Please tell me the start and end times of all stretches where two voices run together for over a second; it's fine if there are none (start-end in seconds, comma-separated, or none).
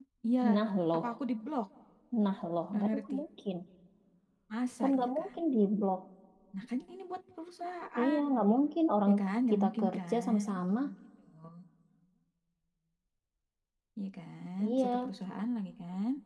9.5-10.8